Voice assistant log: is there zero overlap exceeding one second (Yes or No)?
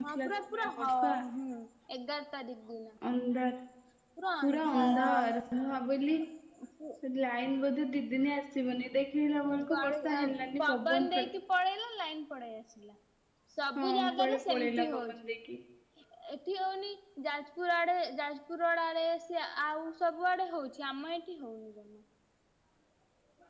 No